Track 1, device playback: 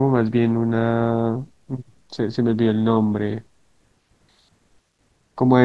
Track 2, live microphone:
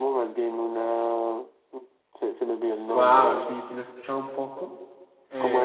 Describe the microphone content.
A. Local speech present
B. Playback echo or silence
A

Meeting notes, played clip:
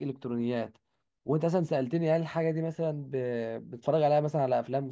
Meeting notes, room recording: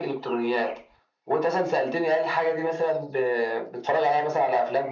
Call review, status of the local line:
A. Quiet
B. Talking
A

